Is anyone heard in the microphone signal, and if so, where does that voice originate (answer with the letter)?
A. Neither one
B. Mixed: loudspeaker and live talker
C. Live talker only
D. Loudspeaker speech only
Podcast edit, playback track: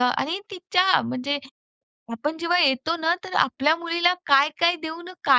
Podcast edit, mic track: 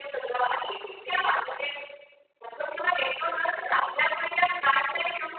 D